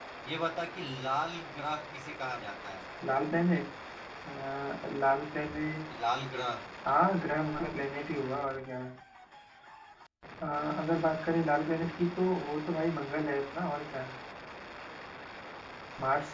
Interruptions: none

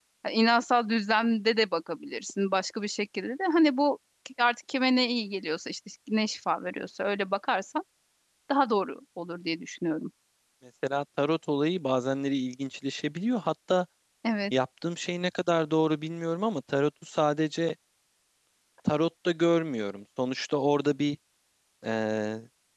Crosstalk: none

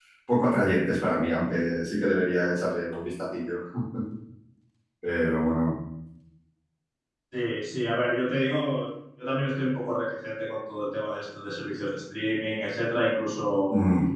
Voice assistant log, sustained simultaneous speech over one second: none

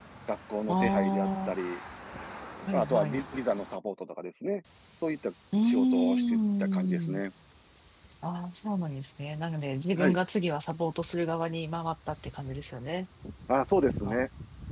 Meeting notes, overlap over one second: present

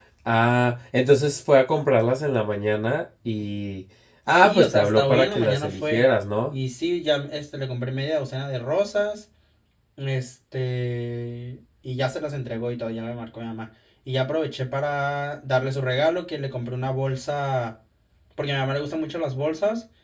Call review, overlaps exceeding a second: present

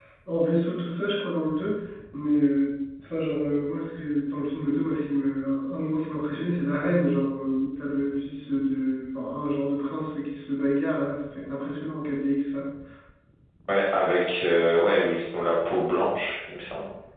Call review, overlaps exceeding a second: none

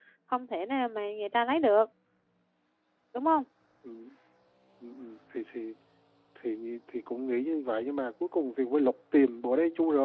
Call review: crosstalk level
none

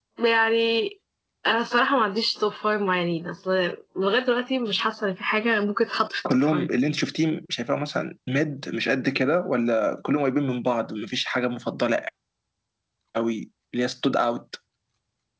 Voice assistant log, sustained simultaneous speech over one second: none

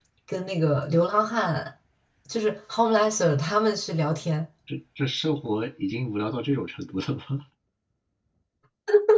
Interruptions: none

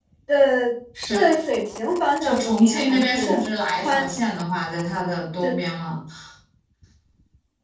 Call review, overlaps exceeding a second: present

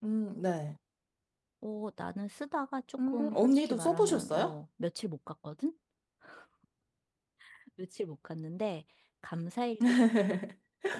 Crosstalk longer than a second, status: present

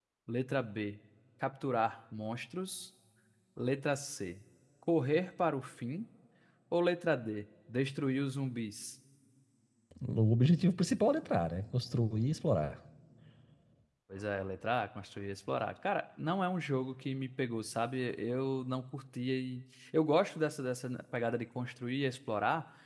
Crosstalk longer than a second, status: none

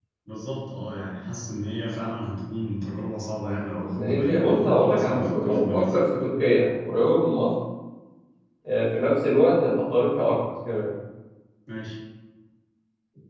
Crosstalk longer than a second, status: present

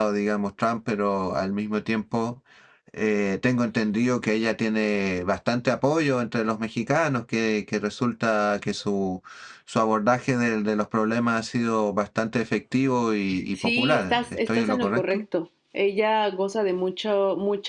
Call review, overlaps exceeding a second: present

